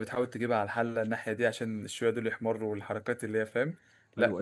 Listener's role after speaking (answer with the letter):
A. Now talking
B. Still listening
A